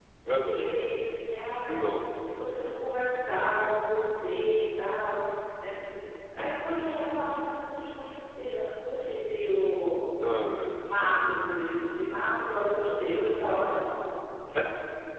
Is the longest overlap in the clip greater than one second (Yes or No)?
No